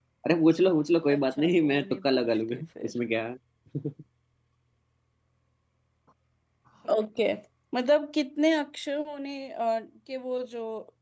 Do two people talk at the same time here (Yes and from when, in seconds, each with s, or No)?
Yes, from 1.1 s